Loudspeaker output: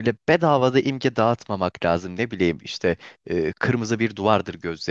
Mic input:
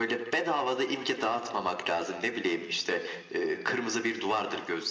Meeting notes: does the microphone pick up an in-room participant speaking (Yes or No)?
No